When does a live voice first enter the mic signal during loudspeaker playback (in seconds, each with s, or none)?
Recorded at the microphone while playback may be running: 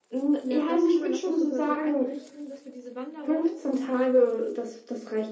0.4 s